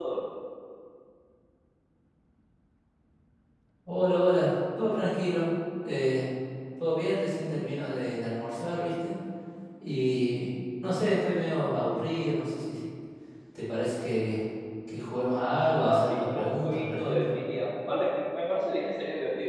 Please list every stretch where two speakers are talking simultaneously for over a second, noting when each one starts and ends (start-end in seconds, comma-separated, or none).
15.8-17.3